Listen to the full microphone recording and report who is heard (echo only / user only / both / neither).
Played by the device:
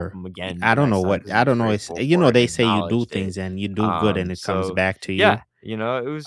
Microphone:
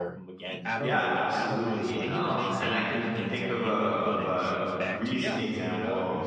both